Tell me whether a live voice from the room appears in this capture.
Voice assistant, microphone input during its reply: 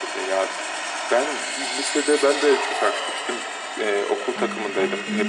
Yes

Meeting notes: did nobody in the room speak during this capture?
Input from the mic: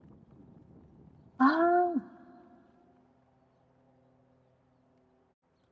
No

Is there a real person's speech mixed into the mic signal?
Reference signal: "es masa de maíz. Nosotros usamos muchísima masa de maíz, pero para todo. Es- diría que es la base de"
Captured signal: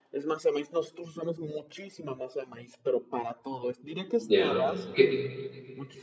Yes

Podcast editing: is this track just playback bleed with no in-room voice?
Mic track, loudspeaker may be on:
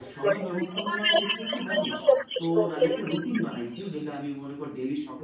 No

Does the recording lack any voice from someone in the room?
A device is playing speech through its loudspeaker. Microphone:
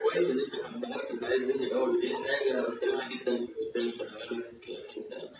Yes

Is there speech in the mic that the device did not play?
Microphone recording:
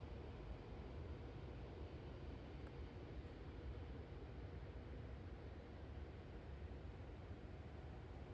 No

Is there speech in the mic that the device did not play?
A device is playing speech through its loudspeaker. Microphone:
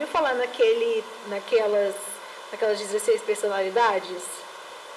No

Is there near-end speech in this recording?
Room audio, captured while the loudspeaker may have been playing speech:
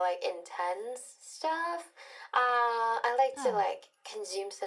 Yes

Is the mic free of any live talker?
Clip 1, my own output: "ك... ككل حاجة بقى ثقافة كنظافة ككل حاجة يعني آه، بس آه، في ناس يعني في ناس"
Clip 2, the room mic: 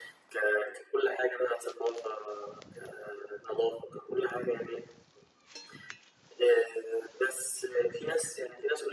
Yes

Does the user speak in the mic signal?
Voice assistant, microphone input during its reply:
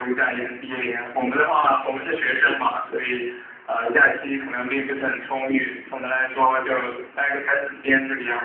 No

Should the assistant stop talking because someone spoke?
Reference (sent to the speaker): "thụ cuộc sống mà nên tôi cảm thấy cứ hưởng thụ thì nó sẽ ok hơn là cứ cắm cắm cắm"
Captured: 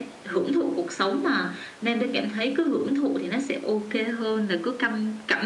No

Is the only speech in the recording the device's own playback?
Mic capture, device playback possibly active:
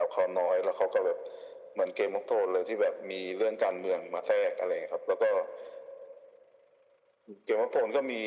Yes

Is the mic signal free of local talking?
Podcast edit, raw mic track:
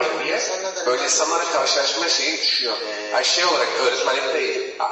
Yes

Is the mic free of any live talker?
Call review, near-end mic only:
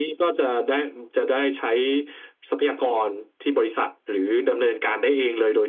Yes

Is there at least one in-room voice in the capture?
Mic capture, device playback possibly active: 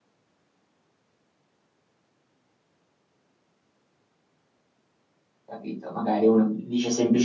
Yes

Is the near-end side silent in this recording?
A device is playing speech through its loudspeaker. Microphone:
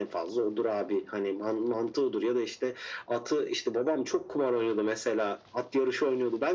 Yes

